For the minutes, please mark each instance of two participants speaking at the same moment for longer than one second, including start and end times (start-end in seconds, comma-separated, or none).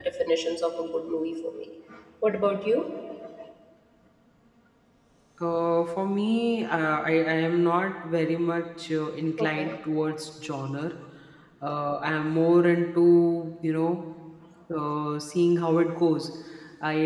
none